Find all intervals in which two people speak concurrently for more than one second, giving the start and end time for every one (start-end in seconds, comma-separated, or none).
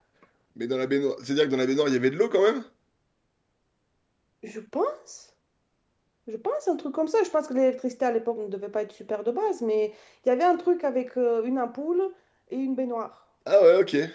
none